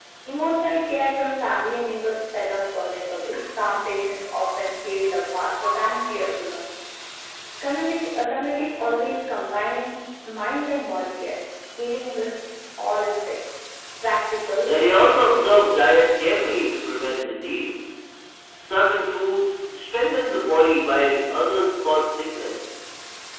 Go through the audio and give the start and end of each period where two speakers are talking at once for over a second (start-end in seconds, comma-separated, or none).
14.7-16.0